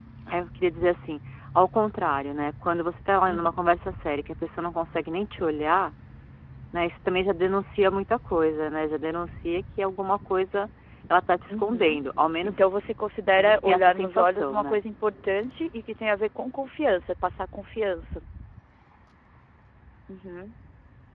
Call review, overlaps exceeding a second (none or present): present